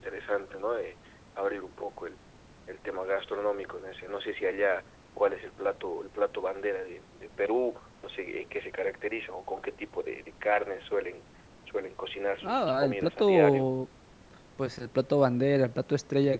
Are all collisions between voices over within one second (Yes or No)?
No